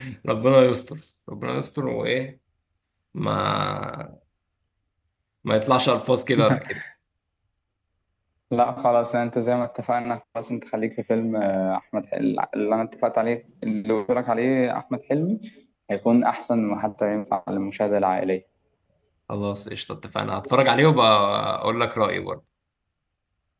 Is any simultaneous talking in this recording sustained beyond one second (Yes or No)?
No